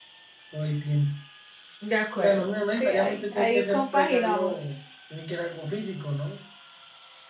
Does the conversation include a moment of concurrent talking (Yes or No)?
Yes